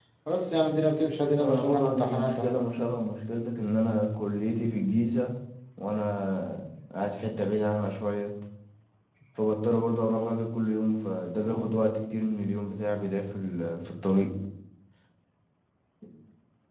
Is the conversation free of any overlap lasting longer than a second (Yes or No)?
No